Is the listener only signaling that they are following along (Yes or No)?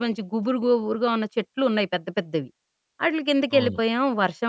Yes